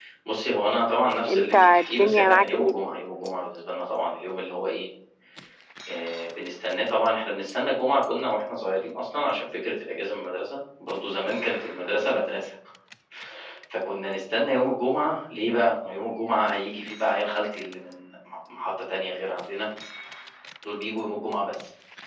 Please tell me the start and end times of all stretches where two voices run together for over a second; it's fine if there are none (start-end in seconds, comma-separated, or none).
1.3-2.7